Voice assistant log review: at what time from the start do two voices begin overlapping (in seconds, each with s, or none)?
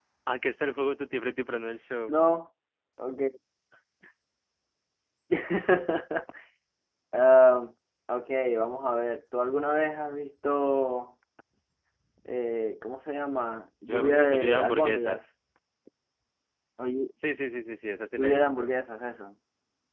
13.9 s